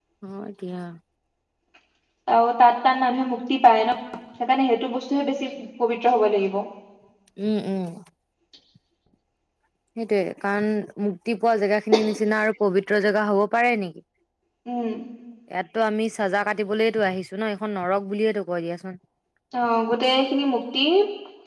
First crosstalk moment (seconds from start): none

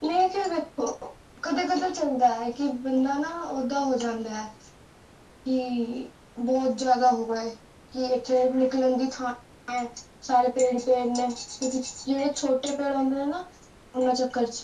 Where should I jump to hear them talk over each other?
none

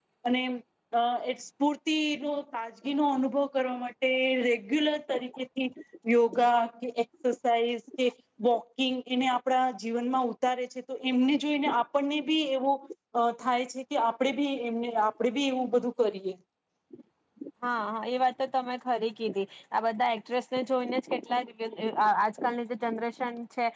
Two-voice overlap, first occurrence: none

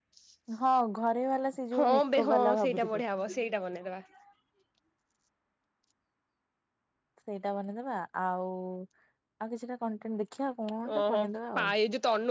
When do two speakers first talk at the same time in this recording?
1.8 s

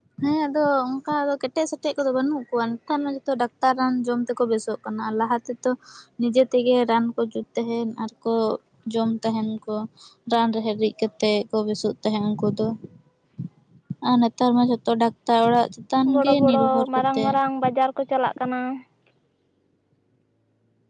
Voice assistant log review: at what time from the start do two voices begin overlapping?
16.1 s

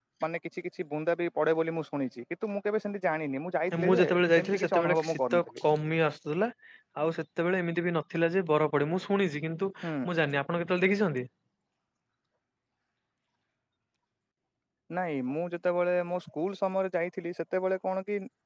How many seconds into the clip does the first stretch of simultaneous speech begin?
3.7 s

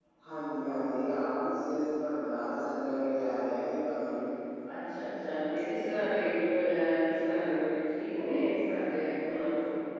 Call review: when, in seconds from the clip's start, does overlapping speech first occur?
none

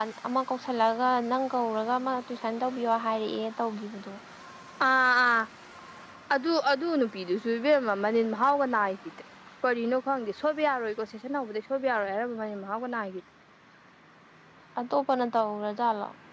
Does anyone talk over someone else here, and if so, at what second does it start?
none

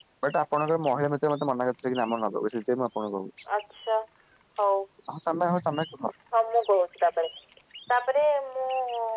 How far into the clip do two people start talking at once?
none

